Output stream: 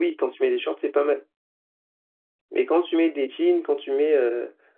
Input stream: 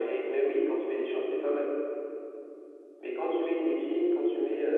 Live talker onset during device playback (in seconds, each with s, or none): none